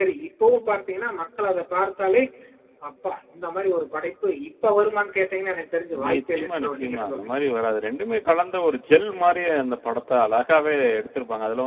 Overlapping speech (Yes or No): Yes